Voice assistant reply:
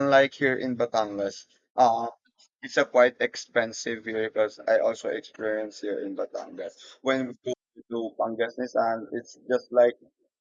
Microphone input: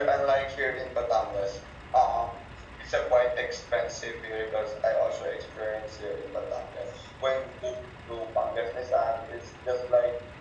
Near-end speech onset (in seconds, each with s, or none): none